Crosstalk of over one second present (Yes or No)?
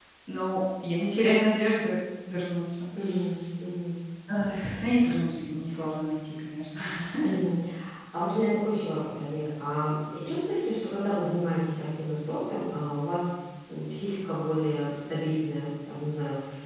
No